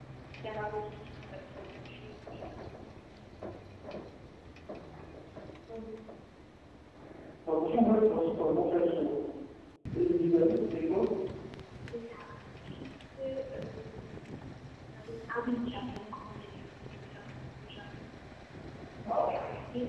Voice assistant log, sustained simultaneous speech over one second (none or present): none